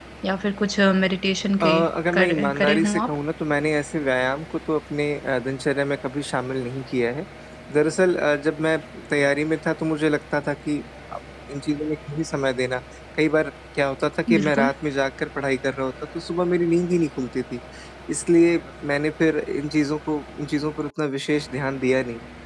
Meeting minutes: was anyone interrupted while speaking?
Yes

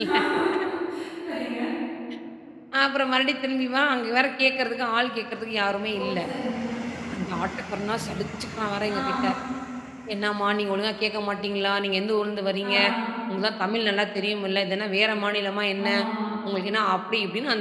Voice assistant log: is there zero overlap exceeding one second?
Yes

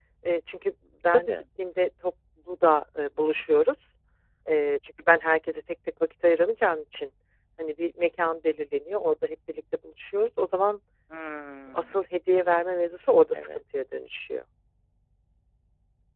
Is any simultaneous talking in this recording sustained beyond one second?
No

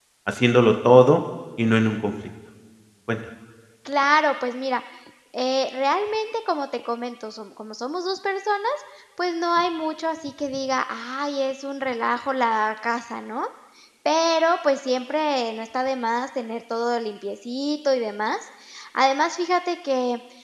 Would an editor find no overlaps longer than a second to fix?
Yes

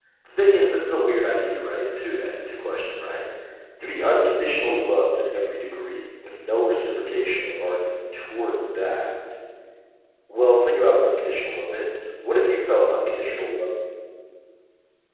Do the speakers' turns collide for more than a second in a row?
No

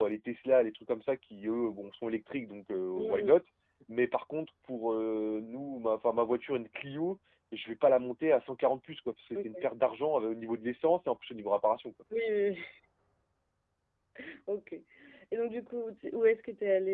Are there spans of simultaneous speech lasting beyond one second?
No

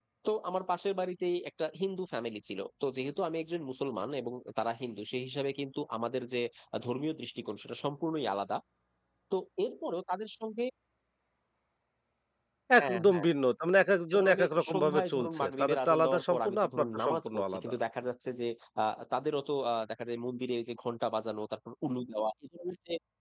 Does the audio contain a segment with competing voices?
Yes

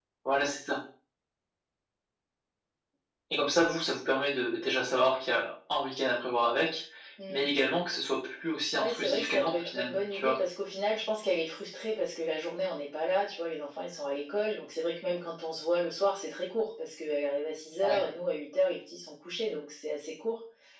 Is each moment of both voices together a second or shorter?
No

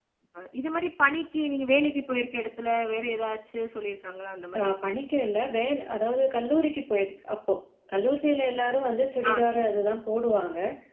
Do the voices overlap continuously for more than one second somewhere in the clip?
No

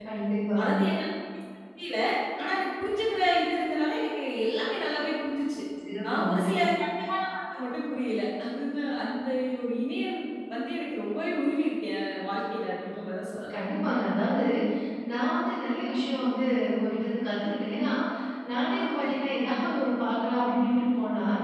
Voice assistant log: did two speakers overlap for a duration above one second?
No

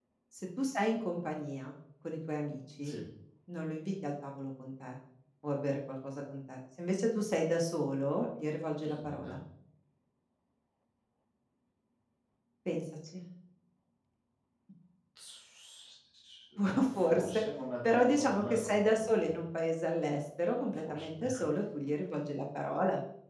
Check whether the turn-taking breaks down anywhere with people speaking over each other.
Yes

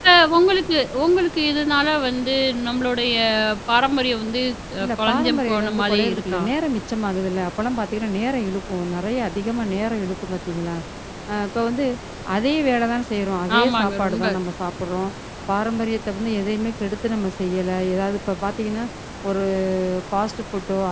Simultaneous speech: Yes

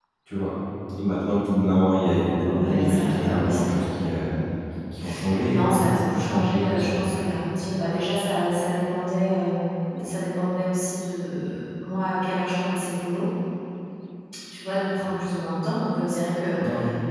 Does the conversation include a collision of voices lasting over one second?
Yes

